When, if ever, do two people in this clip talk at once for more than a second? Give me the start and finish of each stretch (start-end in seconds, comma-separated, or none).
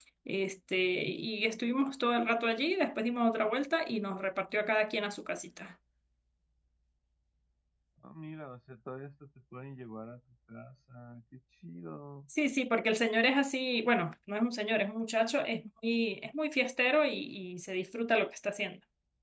none